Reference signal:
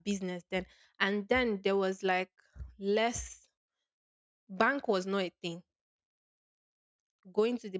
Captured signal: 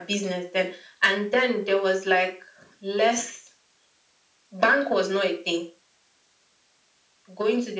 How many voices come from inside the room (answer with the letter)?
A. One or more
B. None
B